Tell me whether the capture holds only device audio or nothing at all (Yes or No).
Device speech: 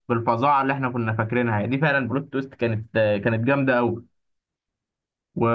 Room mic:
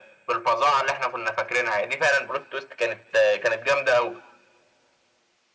Yes